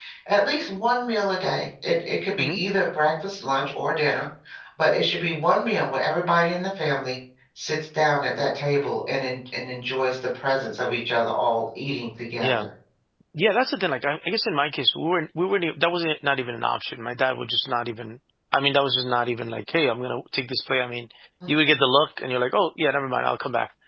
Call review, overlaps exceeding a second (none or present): none